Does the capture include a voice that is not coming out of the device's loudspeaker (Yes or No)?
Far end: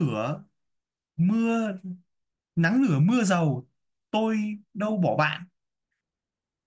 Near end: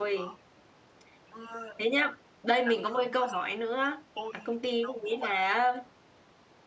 Yes